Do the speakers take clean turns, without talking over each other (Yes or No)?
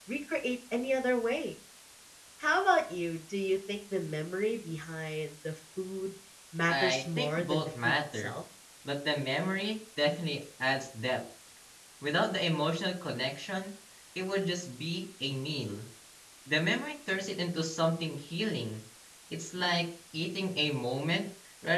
No